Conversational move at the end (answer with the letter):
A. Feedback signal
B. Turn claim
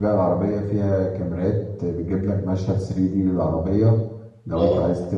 A